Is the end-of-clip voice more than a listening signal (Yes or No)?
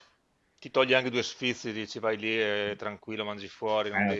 Yes